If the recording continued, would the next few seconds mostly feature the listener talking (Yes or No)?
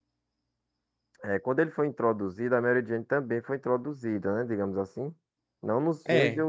No